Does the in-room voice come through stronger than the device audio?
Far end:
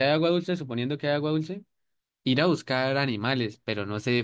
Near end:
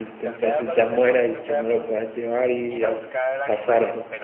Yes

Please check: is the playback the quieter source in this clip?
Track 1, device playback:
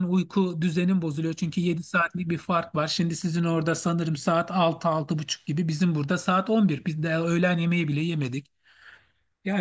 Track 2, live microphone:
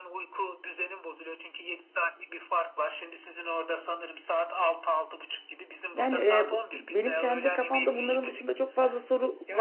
Yes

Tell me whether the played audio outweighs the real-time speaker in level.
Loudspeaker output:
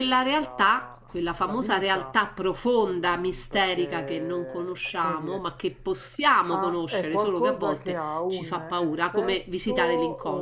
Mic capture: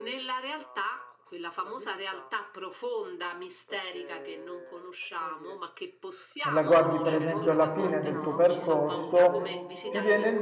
No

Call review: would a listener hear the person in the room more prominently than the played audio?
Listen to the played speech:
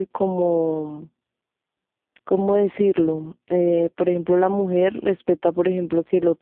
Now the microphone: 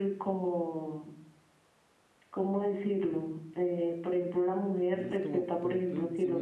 No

